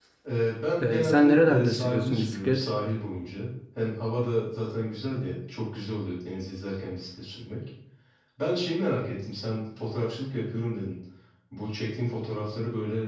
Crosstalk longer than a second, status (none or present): present